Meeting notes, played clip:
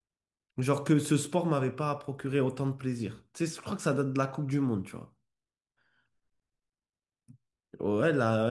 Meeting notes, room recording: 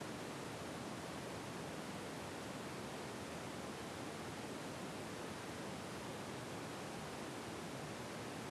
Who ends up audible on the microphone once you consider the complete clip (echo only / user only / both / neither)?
neither